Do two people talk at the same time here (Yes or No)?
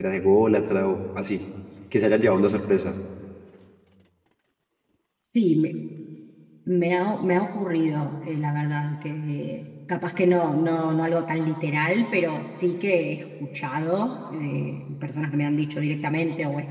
No